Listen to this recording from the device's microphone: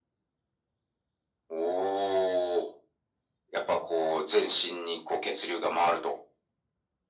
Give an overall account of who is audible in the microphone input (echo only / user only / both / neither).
echo only